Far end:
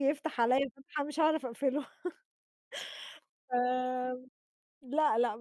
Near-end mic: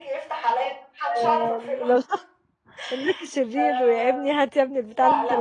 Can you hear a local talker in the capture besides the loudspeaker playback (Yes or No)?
Yes